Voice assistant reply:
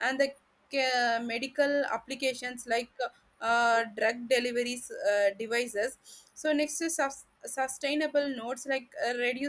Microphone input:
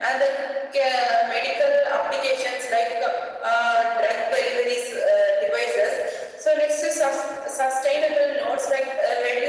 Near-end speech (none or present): none